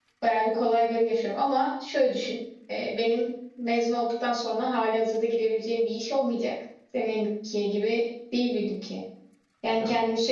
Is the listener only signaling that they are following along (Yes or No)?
Yes